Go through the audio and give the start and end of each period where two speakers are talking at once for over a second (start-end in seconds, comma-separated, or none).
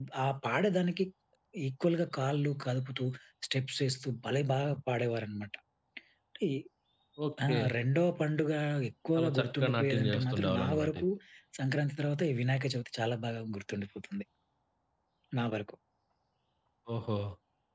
9.2-11.0